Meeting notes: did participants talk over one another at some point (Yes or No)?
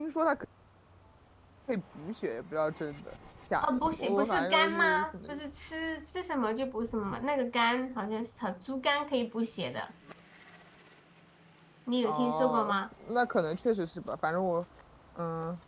Yes